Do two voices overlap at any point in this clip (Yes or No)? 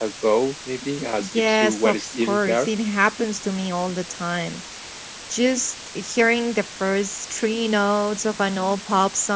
Yes